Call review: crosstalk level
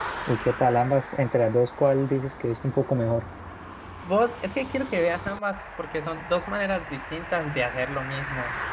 none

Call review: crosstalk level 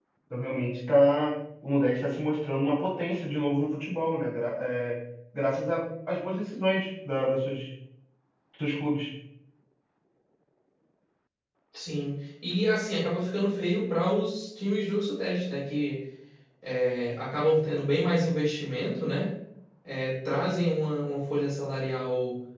none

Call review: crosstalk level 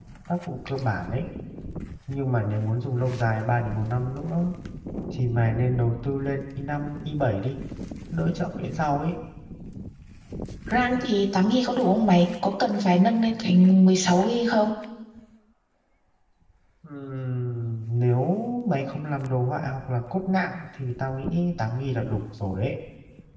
none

